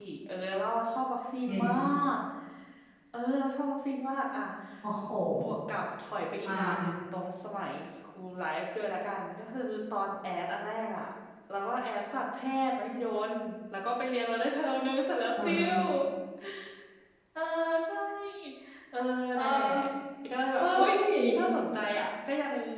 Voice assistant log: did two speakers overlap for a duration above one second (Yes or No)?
No